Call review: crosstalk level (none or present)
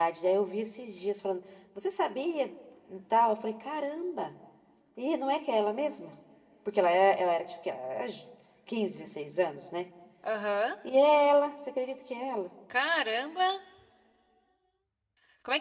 none